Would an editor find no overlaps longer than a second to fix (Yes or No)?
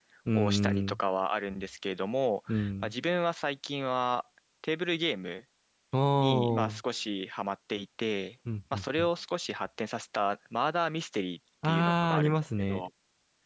No